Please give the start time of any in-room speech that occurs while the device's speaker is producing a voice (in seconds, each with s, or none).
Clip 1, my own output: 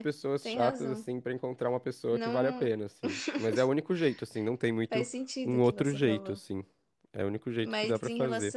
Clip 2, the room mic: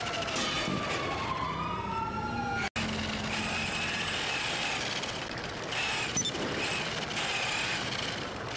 none